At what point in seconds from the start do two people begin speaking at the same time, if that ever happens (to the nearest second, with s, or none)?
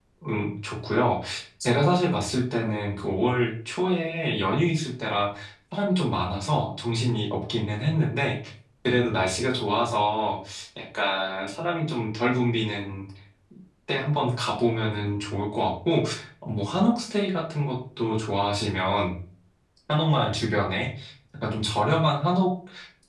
none